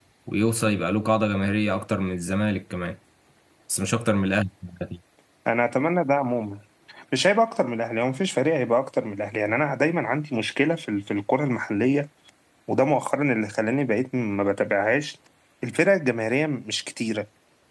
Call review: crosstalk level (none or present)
none